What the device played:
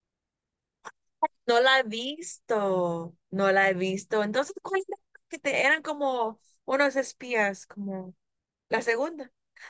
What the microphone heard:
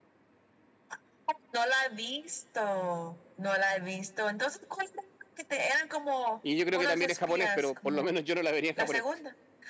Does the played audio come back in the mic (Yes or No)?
Yes